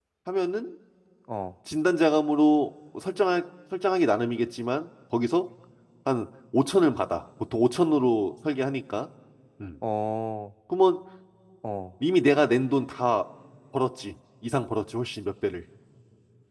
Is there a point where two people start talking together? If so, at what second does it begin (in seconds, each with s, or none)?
none